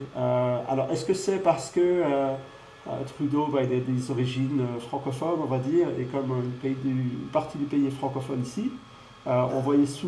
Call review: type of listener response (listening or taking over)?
listening